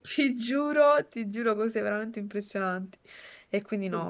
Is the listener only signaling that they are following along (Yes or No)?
Yes